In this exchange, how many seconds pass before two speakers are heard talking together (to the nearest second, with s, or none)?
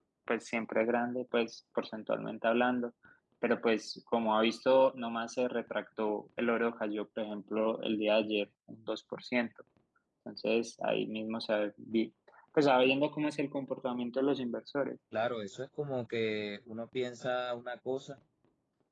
none